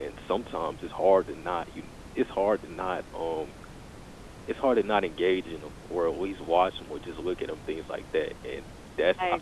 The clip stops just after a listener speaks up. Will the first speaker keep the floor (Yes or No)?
Yes